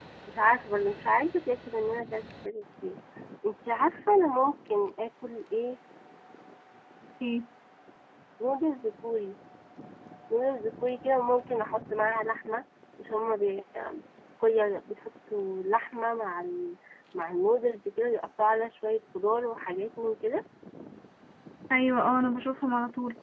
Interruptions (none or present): none